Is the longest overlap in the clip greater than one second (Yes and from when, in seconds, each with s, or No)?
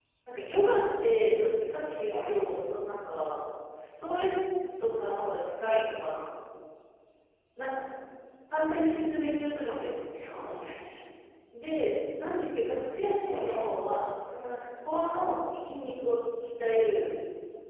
No